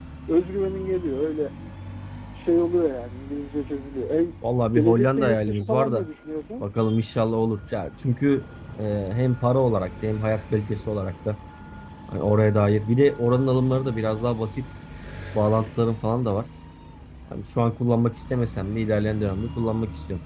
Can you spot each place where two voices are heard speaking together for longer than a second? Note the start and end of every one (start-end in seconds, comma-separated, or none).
4.7-6.1